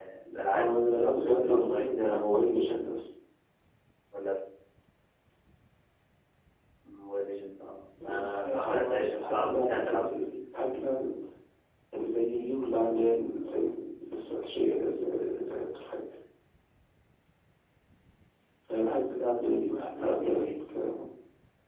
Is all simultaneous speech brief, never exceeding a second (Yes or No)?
No